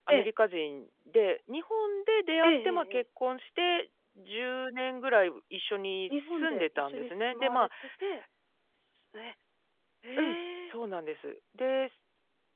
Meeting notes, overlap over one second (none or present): present